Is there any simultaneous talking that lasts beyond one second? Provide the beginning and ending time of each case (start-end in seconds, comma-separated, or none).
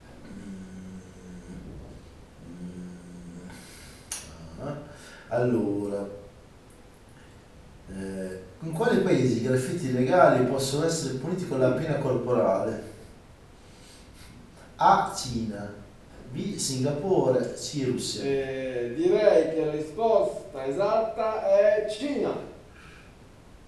none